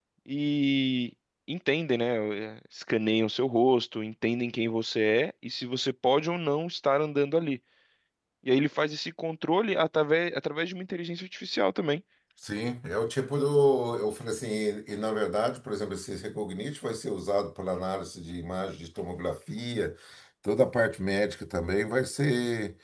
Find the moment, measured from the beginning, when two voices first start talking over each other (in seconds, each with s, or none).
none